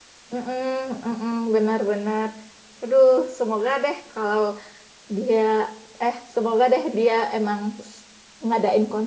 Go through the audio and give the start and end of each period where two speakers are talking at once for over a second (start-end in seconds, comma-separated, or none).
none